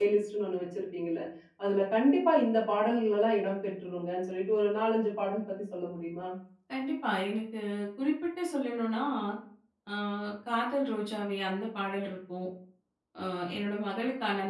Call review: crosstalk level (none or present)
none